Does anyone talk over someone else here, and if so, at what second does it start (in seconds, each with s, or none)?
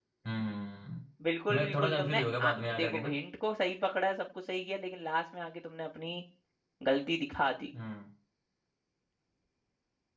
1.5 s